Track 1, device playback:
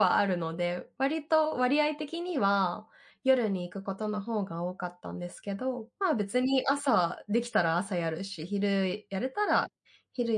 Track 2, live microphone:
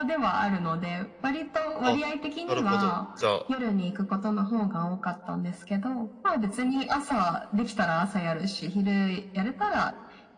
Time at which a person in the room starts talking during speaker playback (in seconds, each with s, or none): 1.8 s